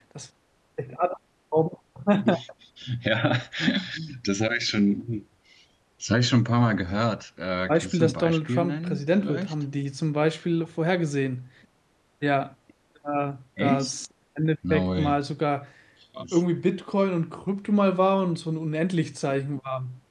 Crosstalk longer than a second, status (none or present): present